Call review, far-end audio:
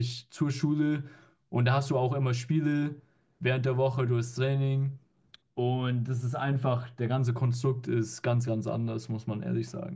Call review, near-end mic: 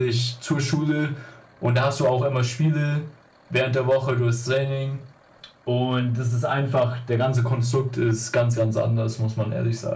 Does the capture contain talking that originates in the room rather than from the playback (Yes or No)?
No